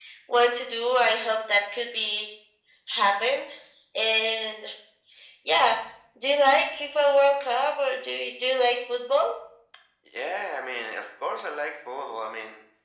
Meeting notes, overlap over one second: none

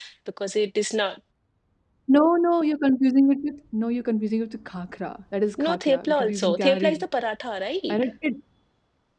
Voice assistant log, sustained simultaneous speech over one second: present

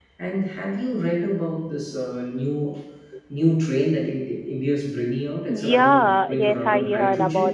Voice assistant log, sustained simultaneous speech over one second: present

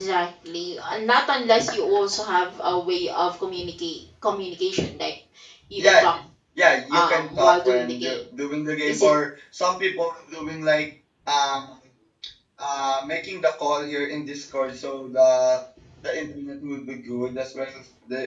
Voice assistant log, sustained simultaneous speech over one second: present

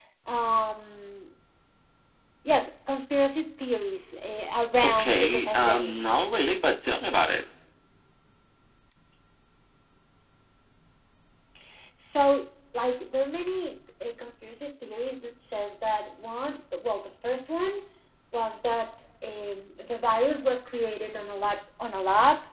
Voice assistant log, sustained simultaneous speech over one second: present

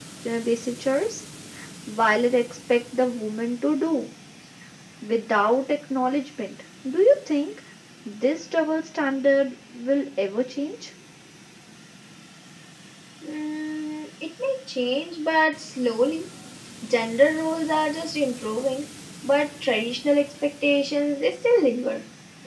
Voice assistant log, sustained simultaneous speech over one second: none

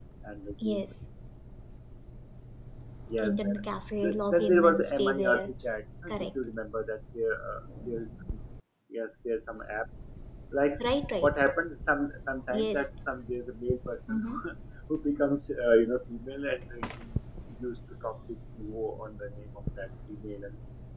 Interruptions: present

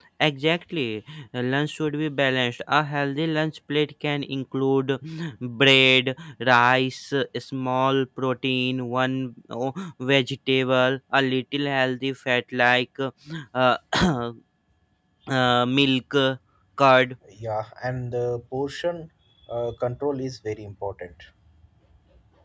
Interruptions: none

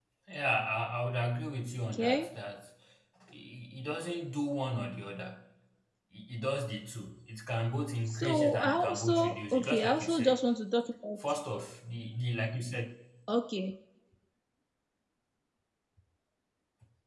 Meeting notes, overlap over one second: present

